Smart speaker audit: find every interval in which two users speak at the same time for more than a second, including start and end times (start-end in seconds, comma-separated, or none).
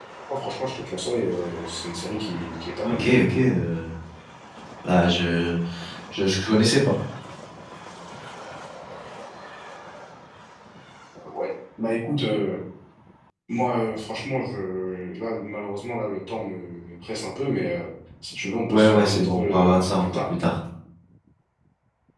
18.7-20.3